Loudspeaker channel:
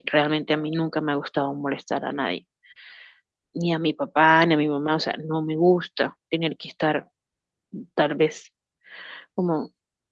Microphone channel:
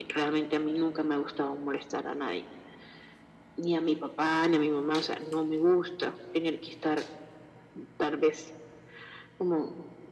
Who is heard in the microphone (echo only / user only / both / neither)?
echo only